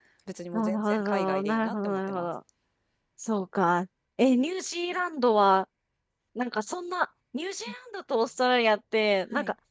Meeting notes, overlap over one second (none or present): present